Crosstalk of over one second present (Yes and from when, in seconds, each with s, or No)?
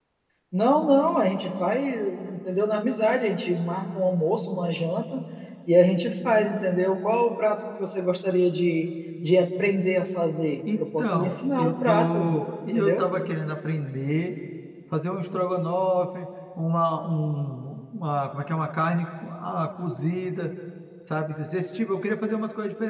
Yes, from 10.7 s